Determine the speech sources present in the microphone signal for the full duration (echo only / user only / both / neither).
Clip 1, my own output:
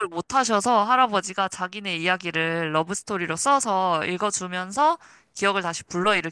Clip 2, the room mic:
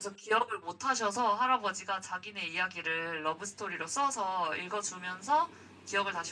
echo only